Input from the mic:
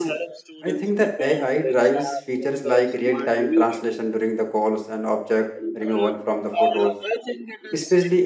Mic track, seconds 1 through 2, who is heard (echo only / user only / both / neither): both